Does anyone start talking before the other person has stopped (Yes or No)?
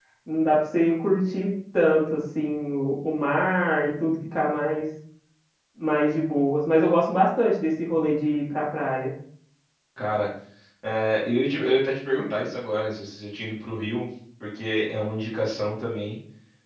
No